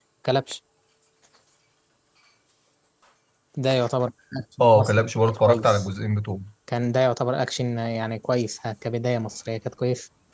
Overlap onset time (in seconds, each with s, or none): 4.6 s